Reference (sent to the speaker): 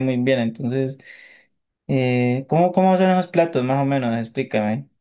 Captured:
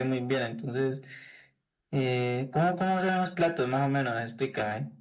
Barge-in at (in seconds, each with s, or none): none